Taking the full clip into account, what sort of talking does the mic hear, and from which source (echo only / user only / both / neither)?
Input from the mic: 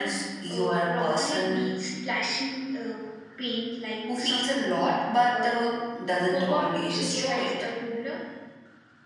echo only